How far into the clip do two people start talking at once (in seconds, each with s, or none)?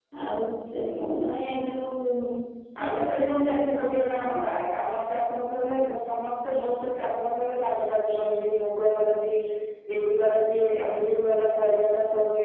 2.8 s